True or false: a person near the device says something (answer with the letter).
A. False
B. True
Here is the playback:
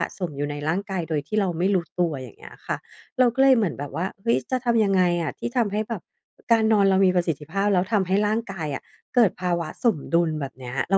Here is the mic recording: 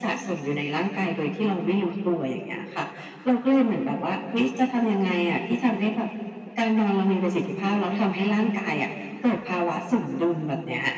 A